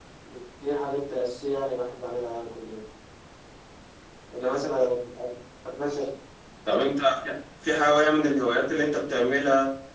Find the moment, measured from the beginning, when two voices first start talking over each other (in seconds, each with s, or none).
none